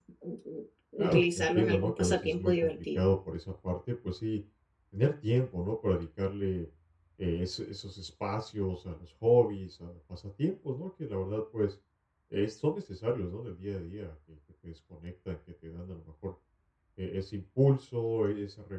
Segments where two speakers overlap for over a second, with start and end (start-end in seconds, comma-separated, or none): 1.0-3.0